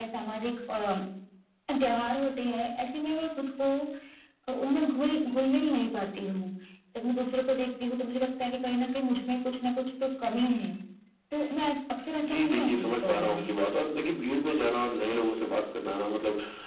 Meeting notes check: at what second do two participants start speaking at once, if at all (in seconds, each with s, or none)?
12.2 s